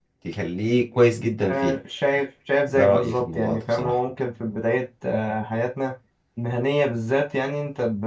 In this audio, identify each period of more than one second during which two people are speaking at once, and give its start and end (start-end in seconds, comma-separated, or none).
2.7-3.9